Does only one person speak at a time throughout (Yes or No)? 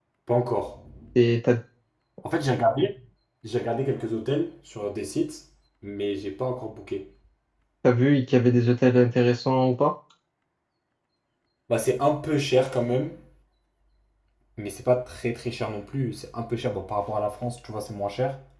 Yes